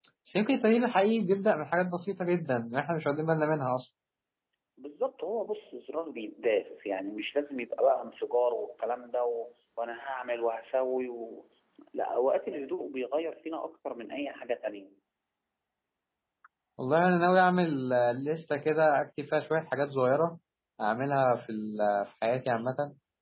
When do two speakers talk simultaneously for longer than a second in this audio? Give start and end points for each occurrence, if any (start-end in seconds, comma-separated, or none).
none